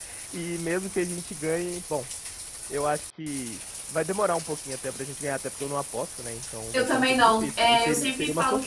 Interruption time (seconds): 6.7 s

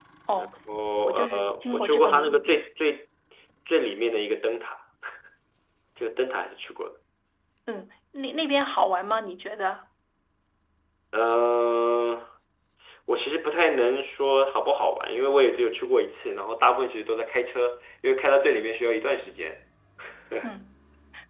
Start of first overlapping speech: 1.1 s

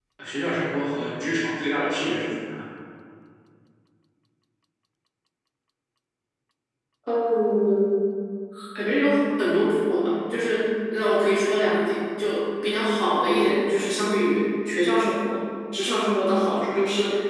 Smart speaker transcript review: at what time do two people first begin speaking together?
none

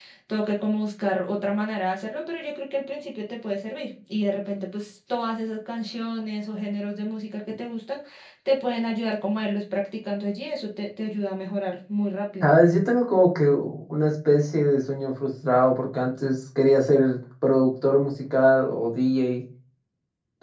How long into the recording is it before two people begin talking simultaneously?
none

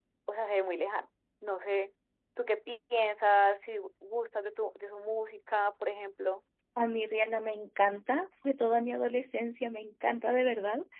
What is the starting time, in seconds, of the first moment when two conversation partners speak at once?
none

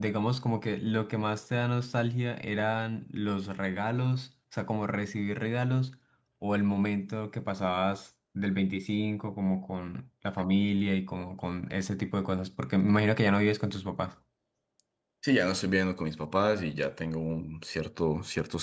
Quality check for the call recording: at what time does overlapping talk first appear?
none

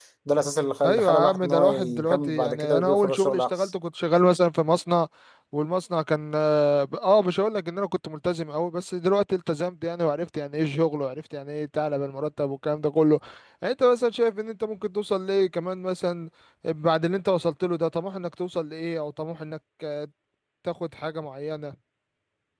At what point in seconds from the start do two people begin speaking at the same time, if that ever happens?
0.8 s

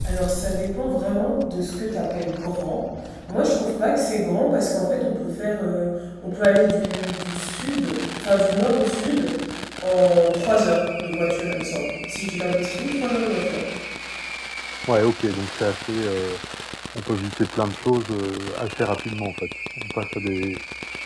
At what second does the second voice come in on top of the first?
none

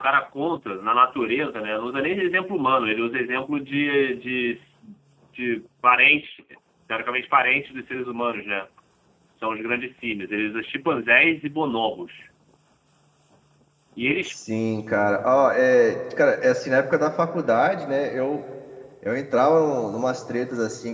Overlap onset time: none

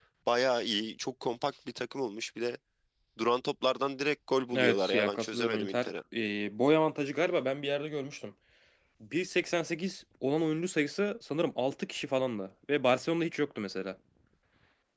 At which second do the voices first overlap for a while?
4.5 s

